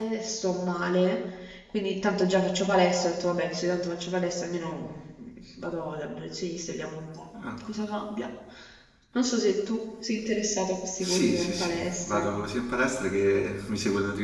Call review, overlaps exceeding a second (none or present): present